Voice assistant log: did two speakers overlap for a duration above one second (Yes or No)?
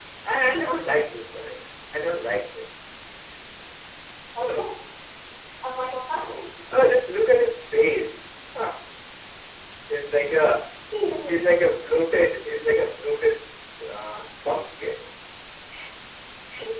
No